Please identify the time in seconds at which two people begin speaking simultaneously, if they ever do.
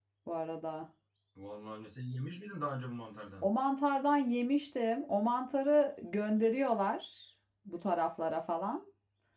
none

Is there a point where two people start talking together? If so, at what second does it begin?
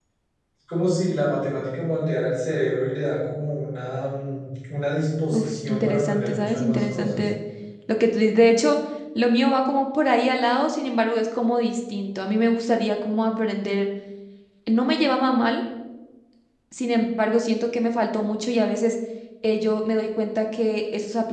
5.3 s

